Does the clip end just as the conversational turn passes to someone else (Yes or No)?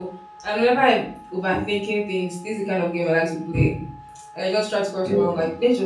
No